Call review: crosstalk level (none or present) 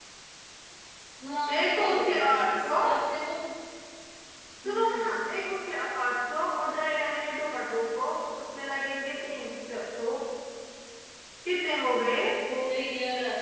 present